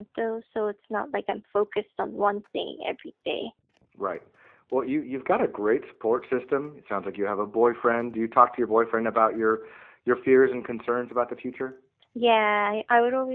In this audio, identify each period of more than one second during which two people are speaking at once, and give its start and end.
none

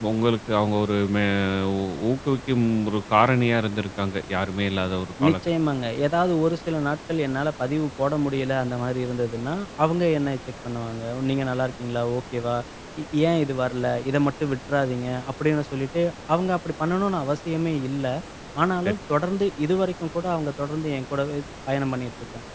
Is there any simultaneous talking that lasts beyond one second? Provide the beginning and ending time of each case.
none

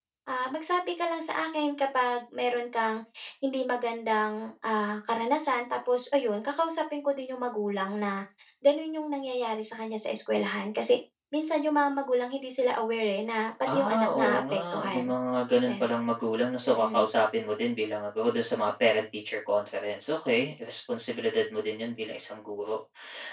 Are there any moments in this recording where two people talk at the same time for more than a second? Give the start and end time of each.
13.6-15.1

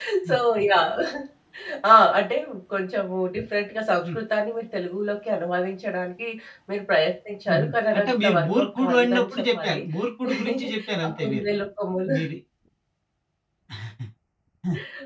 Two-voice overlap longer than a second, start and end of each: 7.5-9.8

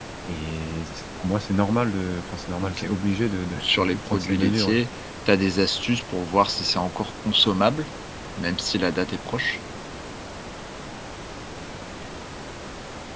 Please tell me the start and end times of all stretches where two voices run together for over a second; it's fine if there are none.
3.6-4.8

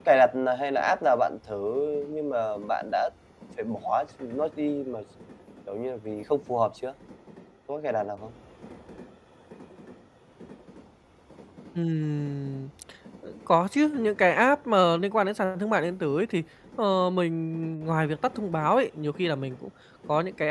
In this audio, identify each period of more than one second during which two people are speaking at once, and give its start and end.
none

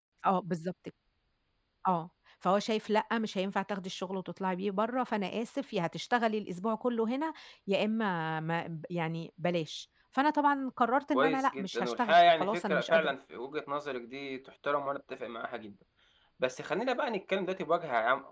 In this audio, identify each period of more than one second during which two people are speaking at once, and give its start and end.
11.1-13.1

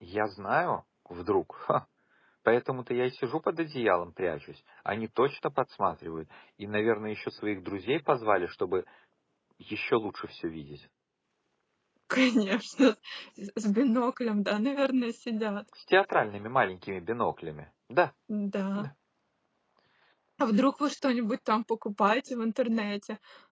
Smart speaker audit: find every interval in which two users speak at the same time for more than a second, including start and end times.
none

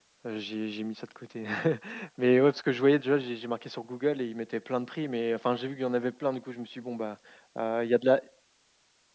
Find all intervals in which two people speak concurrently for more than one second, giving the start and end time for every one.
none

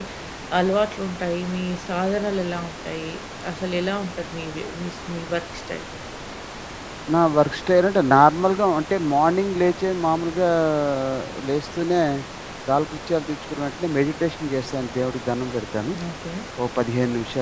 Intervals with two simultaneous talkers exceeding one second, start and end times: none

